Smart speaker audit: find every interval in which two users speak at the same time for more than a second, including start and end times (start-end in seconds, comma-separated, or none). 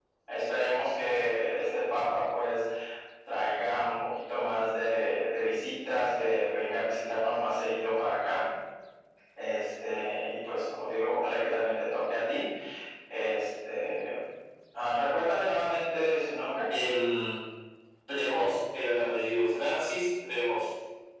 none